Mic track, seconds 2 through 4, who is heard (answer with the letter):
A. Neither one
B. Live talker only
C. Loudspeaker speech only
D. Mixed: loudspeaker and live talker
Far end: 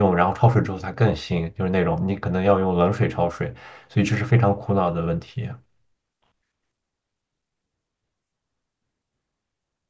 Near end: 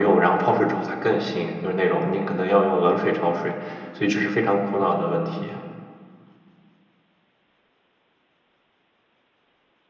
C